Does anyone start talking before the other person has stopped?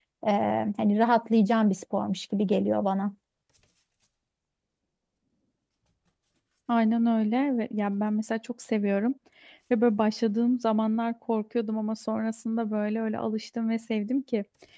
No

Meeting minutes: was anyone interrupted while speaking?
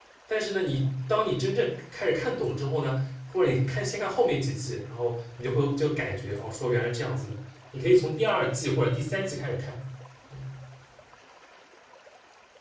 No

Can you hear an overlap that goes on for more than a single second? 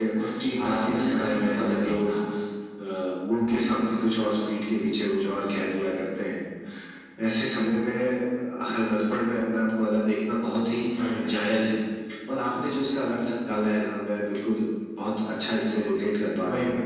Yes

